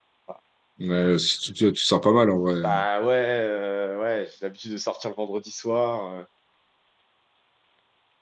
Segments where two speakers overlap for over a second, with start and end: none

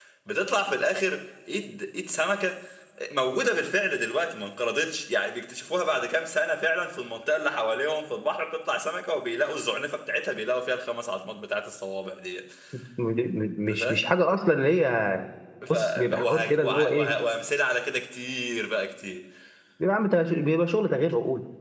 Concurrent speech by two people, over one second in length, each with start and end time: 15.7-17.1

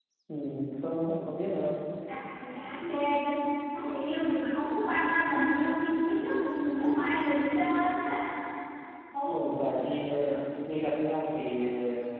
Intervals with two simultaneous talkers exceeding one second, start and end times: none

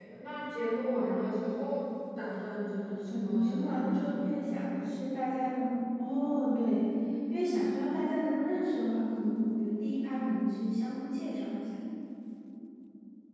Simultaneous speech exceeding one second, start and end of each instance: 3.0-4.3

